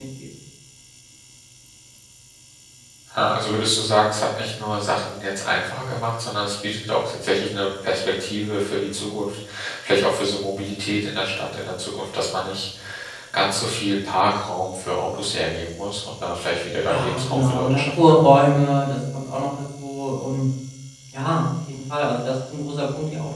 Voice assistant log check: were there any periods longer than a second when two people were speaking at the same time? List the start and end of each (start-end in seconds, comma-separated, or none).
16.9-18.2